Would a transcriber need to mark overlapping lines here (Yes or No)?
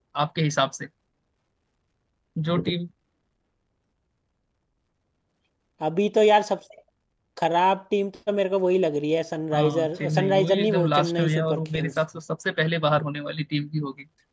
Yes